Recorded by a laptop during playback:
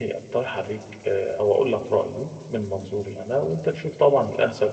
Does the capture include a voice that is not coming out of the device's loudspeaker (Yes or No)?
Yes